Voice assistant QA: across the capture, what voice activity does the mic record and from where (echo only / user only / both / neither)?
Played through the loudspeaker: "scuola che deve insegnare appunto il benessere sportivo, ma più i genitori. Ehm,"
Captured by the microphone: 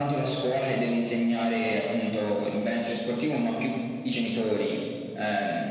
echo only